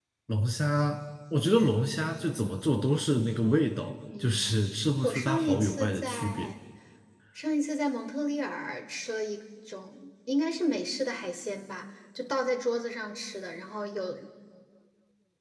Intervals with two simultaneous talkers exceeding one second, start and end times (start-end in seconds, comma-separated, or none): 5.0-6.5